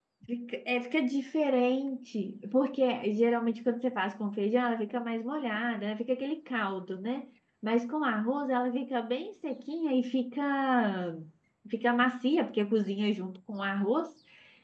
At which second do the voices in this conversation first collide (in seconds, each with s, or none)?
none